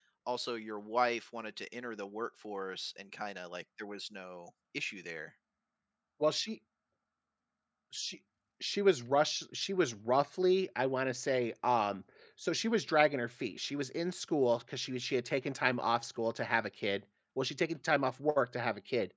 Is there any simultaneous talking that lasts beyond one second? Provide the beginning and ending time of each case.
none

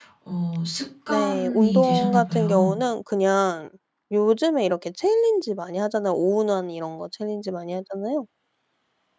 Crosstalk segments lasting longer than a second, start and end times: 1.1-2.8

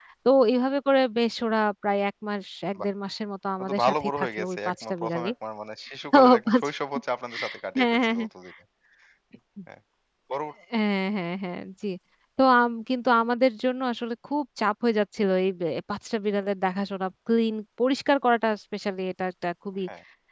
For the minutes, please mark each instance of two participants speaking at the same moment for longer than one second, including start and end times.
3.6-5.3

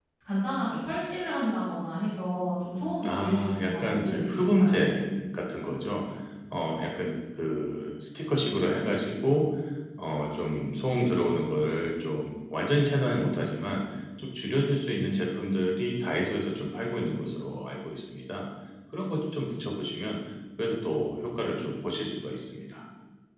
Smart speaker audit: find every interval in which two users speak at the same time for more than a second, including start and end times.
3.0-4.7

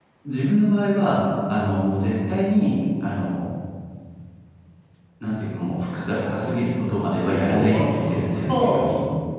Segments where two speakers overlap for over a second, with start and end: 7.5-8.8

